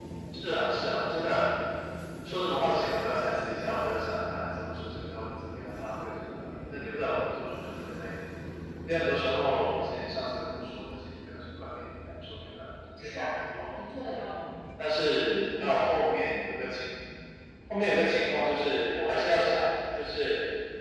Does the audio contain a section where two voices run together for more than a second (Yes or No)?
No